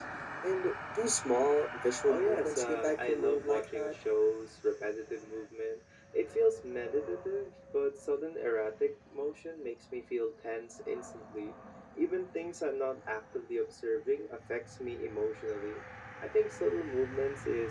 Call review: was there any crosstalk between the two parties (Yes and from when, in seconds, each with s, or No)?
Yes, from 2.1 s